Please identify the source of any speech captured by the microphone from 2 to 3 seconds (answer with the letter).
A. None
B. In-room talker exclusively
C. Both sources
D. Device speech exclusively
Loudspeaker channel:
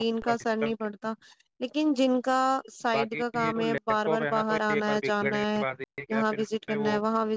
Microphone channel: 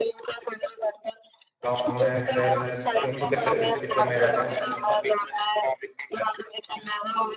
C